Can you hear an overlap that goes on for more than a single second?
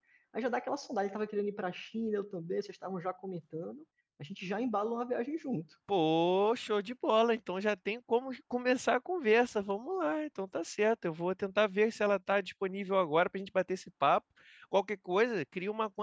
No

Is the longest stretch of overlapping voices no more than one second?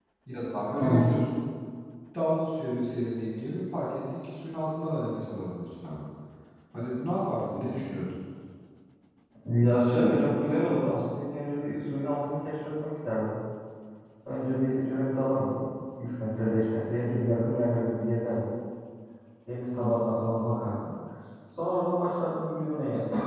Yes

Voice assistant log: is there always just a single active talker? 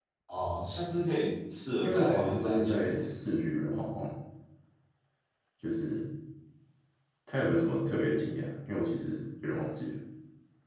No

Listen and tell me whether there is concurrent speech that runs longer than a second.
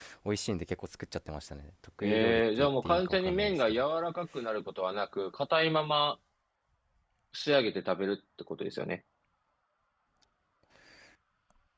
Yes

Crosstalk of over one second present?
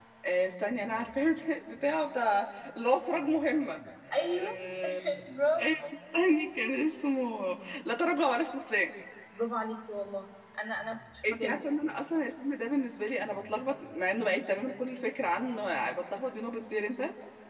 No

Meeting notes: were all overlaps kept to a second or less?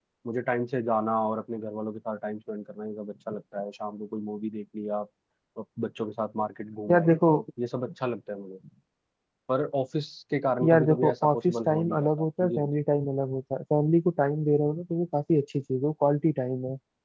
No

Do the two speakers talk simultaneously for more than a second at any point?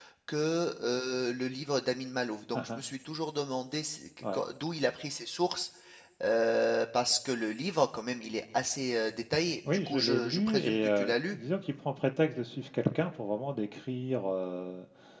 Yes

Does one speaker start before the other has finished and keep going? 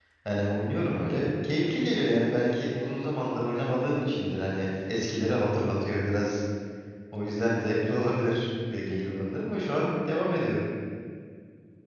No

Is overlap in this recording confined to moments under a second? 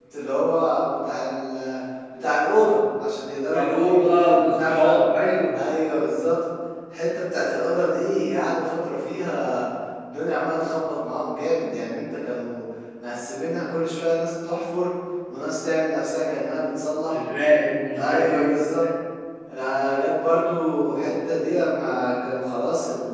No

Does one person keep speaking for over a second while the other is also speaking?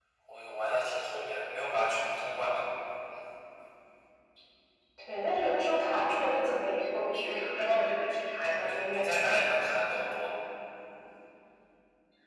No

